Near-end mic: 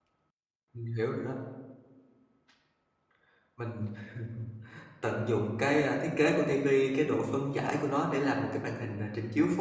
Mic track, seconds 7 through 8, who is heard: user only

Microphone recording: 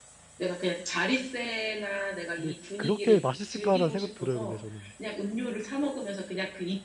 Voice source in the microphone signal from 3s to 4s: both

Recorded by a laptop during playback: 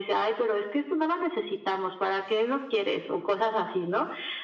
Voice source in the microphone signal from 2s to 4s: echo only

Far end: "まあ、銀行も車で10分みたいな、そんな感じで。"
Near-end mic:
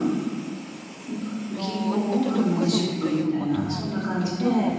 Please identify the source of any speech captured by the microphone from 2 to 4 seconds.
both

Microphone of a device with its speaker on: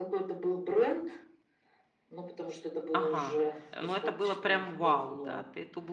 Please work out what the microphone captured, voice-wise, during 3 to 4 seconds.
both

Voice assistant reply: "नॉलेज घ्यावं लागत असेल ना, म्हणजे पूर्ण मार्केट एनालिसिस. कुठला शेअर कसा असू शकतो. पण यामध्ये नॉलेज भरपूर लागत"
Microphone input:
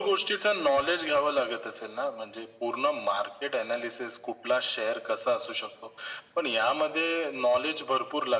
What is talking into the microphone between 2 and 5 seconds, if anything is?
echo only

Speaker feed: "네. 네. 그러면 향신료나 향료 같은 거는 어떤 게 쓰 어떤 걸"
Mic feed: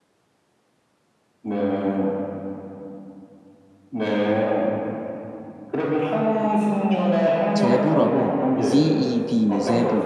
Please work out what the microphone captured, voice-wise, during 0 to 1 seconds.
neither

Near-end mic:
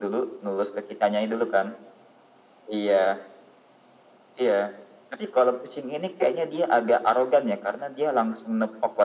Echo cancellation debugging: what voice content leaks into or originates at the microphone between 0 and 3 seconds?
echo only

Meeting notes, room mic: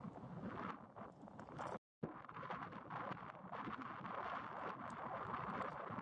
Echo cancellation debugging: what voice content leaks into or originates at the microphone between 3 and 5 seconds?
neither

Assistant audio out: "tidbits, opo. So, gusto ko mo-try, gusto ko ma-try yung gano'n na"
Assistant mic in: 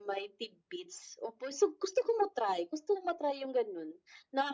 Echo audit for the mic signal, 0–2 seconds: echo only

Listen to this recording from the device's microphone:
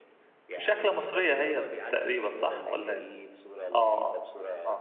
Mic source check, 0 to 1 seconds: both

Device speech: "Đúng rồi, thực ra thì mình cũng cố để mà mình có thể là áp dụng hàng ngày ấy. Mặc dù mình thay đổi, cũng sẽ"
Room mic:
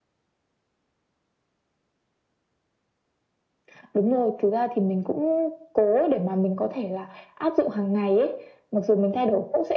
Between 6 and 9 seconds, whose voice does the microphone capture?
echo only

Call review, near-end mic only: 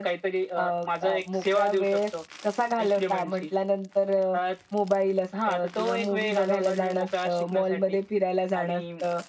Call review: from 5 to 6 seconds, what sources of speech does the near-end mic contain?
echo only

